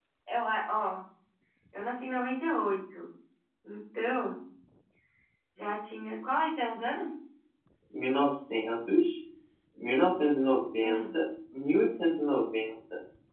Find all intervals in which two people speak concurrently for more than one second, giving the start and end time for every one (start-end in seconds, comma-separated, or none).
none